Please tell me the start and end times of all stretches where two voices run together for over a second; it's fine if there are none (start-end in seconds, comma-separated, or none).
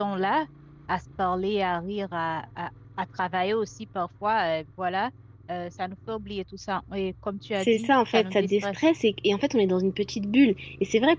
7.6-8.8